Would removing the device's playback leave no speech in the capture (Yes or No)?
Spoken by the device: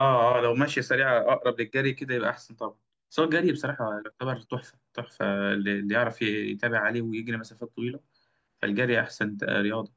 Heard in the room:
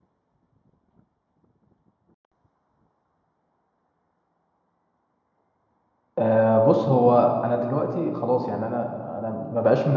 No